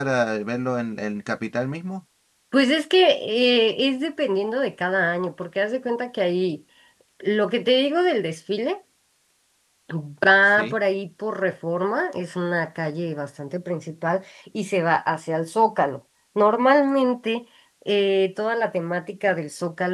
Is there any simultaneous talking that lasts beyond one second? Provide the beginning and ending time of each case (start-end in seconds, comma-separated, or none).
none